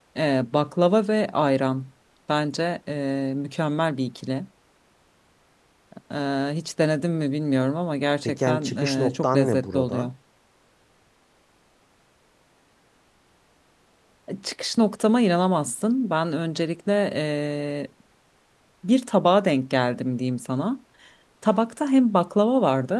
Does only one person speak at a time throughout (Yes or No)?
No